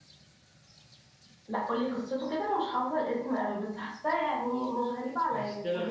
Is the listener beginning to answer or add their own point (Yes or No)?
Yes